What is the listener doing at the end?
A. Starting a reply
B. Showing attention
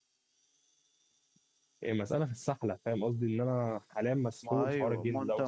A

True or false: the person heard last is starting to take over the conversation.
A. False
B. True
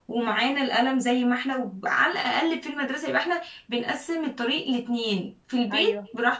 A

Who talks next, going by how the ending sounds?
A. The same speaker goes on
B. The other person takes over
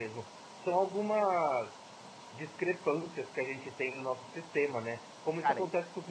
A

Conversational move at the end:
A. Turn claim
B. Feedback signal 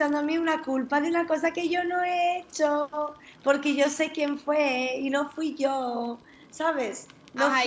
A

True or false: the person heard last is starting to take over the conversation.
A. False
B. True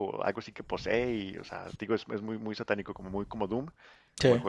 A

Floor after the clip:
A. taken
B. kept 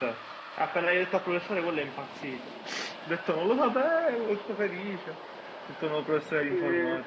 A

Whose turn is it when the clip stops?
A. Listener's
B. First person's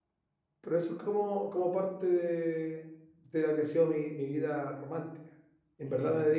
B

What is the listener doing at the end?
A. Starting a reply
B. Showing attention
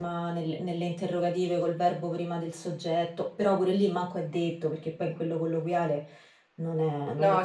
A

